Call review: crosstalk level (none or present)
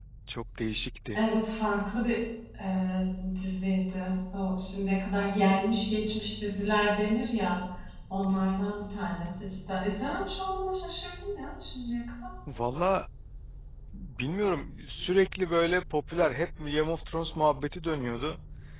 none